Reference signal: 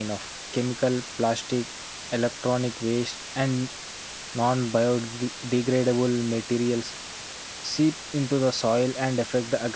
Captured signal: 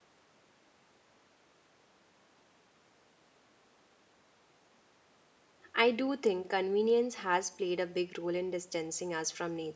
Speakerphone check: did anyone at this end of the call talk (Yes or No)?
Yes